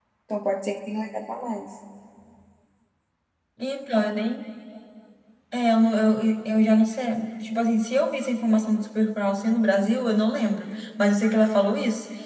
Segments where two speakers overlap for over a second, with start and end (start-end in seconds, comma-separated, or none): none